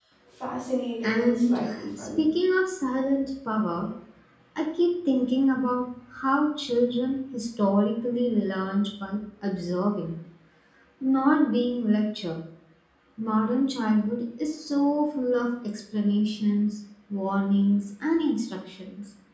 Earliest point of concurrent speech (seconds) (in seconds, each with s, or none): 1.0 s